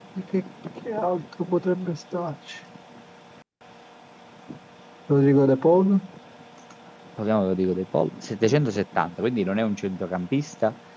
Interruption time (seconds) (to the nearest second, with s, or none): none